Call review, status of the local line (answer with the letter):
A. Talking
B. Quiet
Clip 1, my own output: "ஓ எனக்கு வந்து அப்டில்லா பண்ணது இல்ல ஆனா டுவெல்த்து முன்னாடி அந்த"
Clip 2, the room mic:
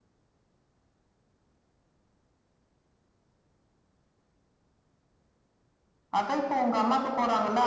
A